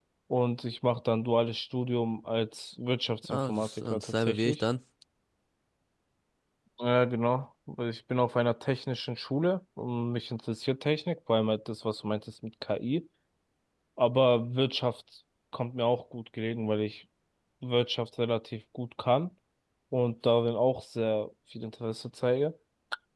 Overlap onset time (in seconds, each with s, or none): 3.2 s